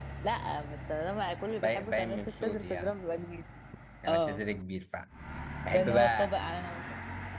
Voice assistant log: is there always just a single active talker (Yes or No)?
No